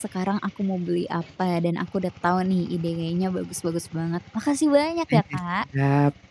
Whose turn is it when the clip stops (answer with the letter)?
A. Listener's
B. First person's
A